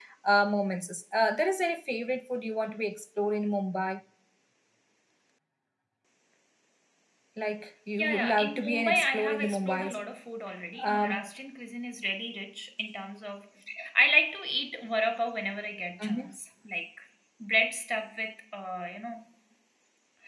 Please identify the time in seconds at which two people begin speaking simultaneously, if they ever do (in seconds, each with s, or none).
8.0 s